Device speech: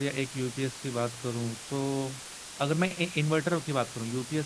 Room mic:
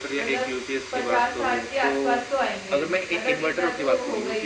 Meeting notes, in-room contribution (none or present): present